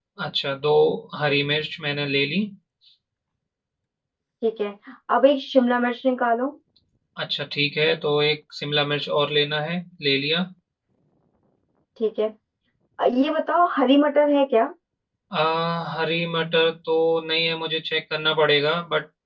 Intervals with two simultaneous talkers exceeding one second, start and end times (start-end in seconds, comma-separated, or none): none